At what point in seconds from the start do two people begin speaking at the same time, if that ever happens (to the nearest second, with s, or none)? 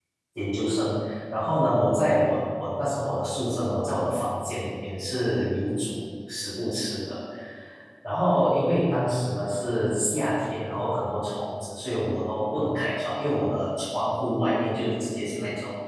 none